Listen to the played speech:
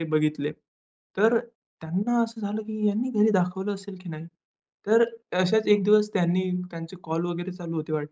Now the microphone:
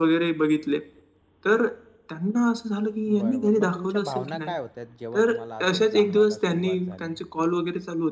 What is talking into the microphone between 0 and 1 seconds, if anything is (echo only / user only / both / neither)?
echo only